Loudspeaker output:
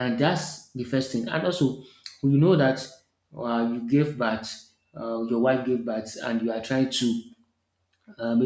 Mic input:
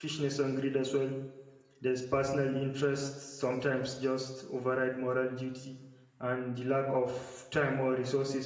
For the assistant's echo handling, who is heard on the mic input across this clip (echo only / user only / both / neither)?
user only